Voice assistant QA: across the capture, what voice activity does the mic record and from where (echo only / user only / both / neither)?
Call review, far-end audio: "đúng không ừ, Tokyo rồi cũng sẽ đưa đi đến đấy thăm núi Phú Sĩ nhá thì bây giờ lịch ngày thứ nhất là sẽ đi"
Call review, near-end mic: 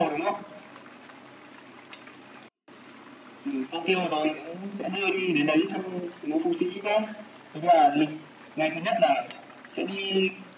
echo only